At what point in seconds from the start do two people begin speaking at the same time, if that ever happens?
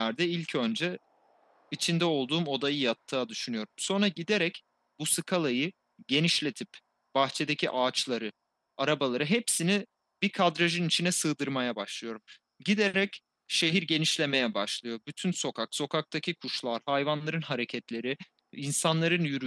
none

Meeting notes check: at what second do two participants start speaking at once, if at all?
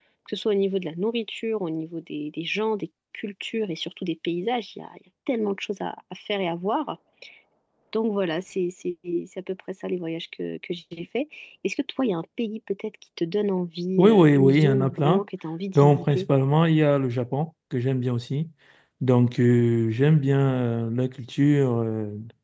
14.0 s

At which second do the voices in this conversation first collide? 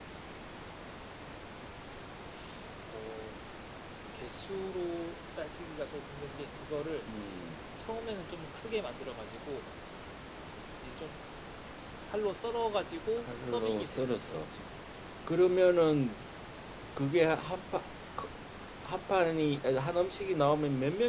13.3 s

